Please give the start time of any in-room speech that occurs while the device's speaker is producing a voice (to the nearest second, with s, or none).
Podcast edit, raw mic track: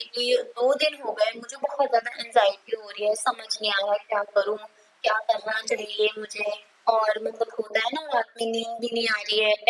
none